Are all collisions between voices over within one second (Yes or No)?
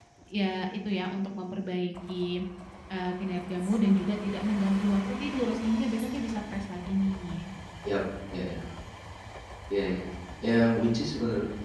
Yes